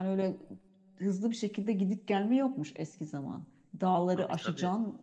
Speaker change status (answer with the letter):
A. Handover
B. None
B